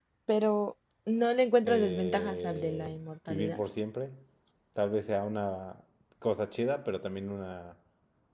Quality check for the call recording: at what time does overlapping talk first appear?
2 s

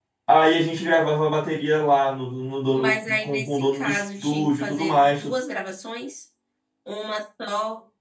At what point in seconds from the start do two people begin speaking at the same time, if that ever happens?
3 s

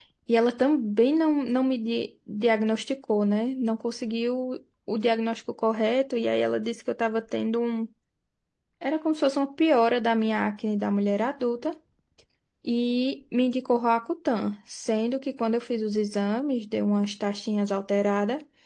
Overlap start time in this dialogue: none

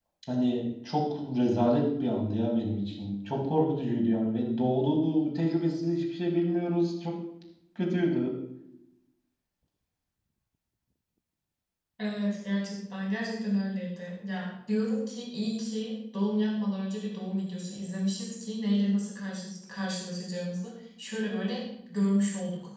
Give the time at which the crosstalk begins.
none

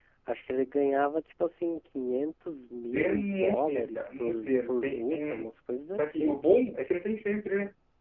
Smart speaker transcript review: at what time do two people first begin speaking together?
3 s

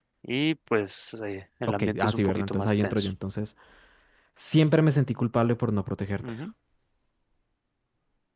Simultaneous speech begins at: 2 s

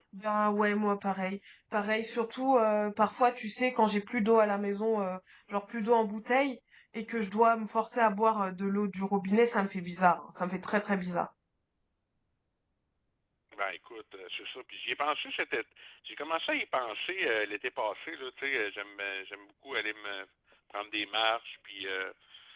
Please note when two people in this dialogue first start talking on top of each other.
none

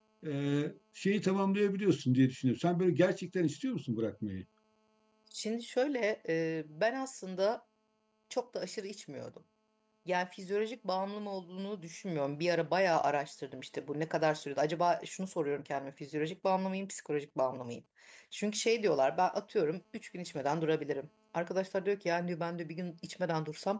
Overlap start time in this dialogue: none

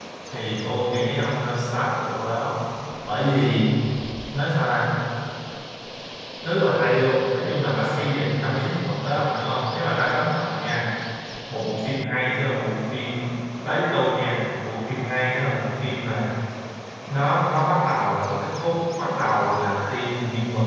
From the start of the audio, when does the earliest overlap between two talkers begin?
none

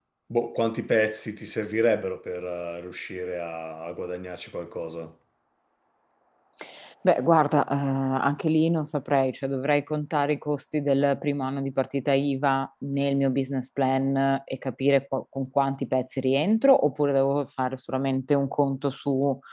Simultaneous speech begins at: none

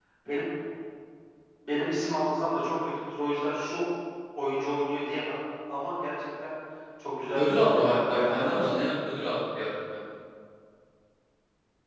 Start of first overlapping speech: 7 s

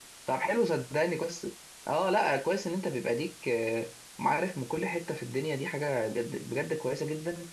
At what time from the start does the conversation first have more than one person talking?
none

